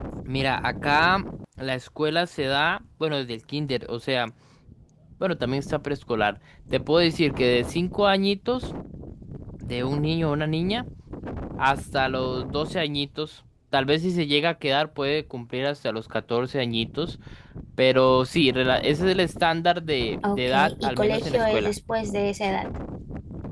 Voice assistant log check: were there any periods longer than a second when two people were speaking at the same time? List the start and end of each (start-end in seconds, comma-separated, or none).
20.2-21.7